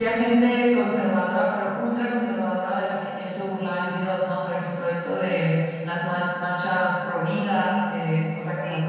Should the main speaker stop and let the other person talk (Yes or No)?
No